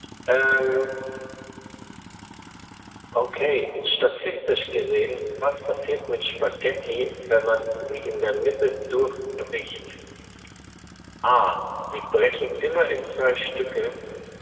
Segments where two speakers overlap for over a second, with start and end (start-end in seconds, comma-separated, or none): none